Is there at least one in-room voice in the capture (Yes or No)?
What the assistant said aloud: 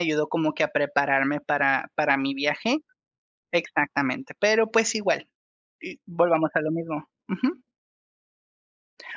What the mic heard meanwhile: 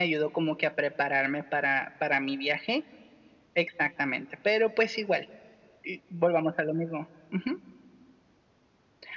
No